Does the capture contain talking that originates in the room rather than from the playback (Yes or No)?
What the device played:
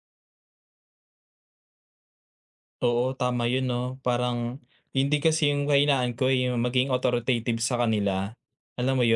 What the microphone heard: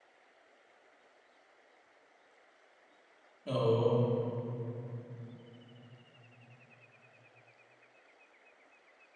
Yes